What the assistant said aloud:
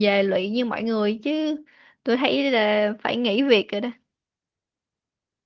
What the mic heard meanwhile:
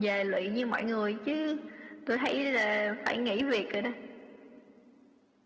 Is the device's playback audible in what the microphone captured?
Yes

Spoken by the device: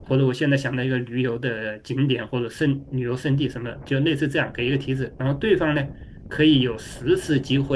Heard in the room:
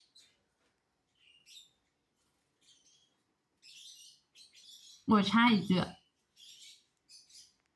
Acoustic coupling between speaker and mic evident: No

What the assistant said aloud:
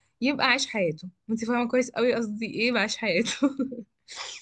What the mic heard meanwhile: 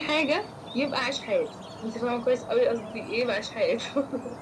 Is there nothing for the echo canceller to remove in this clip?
No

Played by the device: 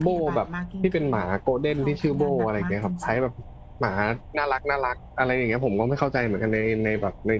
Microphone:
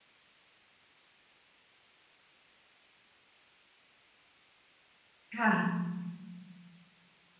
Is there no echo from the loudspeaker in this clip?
Yes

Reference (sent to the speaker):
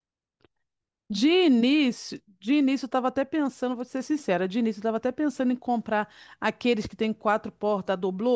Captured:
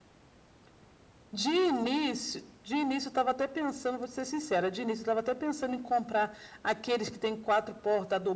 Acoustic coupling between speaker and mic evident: Yes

